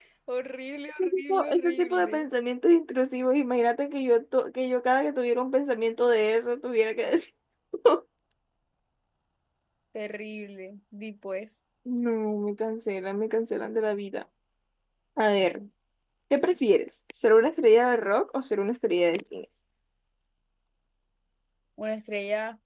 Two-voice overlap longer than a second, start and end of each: 1.0-2.2

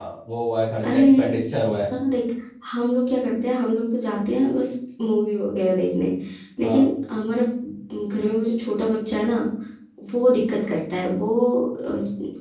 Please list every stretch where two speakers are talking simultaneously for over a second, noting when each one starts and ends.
none

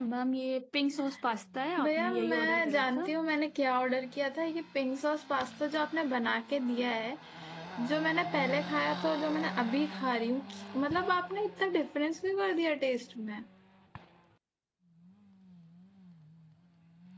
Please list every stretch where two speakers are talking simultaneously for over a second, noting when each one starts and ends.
1.8-3.1

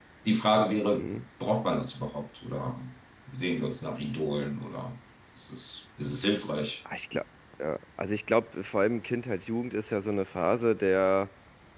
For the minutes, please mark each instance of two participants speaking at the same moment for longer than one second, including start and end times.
none

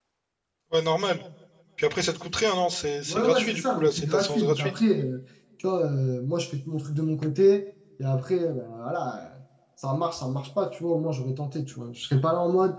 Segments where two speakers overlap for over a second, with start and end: 3.1-4.8

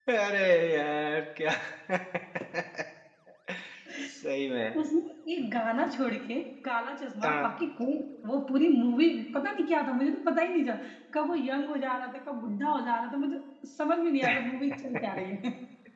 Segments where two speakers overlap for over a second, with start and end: none

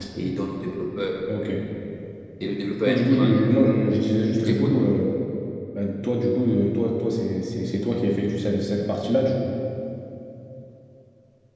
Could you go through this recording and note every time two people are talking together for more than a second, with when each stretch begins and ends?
none

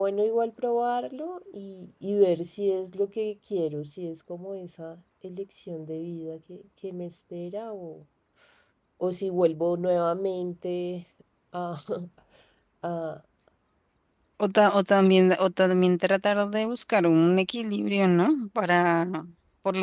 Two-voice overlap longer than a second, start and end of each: none

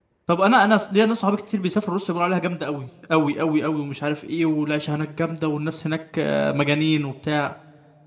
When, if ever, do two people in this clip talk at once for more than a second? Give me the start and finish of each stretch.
none

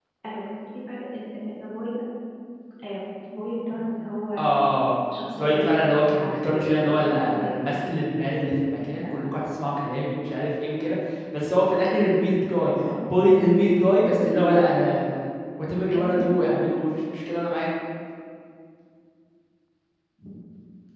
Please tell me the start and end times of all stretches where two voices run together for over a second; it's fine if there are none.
5.4-7.5

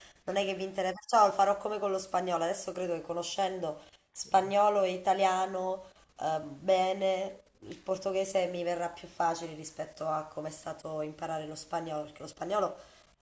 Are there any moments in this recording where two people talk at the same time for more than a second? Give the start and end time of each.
none

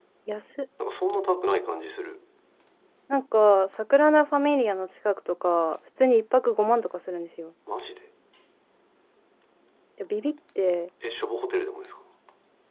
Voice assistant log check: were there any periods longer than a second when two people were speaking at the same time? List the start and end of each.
none

